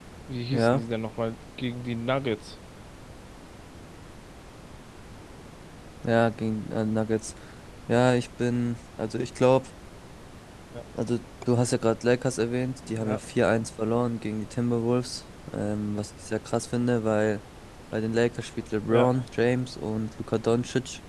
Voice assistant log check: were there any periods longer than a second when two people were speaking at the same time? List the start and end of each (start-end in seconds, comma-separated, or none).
none